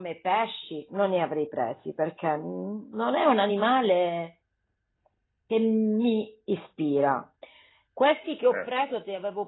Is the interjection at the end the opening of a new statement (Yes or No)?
No